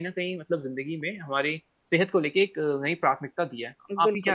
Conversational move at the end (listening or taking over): taking over